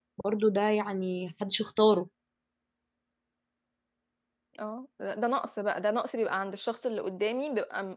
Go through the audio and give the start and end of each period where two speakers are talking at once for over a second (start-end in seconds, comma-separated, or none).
none